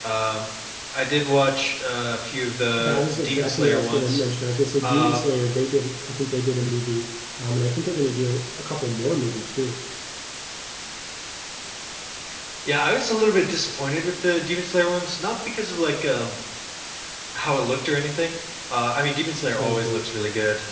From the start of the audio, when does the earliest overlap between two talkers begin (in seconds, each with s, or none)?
2.8 s